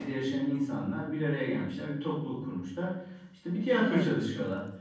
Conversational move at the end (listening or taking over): listening